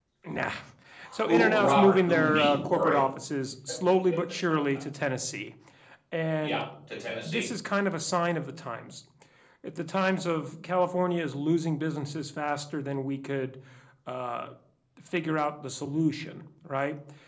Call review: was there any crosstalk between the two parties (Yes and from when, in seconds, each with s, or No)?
Yes, from 1.2 s